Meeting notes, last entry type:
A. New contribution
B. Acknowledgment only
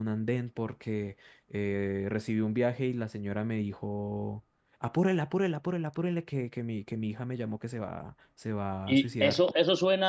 A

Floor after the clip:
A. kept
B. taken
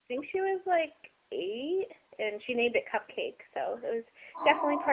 A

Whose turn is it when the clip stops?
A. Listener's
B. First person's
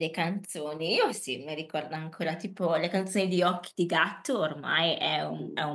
B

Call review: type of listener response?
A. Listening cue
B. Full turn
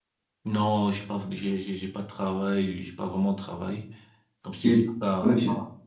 A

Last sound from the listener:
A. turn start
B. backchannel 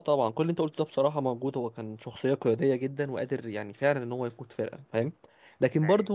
B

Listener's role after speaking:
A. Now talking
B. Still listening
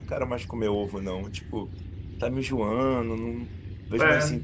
B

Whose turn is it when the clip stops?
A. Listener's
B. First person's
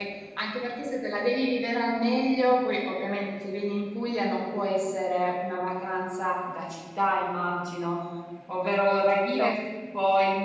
B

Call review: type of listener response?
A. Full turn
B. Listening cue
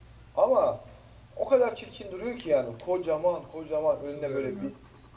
B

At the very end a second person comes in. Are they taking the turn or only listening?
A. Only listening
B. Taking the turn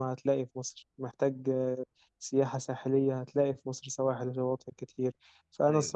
A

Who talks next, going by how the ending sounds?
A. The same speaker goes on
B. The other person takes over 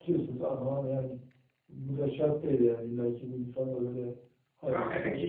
B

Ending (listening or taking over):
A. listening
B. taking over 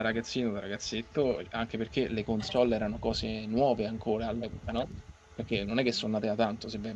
A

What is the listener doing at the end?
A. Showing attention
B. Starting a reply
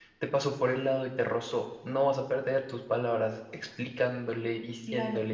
B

